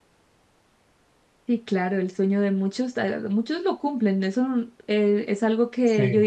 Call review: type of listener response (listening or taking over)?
listening